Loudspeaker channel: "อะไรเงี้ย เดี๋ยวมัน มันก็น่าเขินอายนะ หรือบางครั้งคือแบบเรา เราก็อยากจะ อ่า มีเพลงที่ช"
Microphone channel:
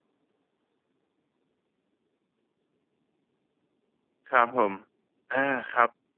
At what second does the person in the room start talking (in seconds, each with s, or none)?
4.3 s